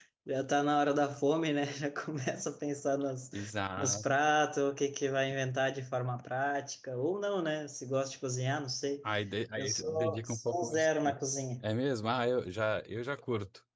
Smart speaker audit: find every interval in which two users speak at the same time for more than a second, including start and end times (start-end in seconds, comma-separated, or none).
9.6-11.1